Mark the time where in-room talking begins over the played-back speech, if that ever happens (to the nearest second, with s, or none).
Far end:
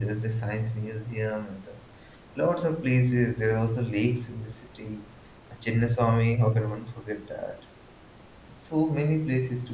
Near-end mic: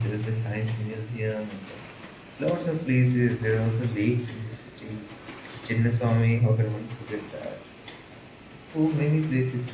none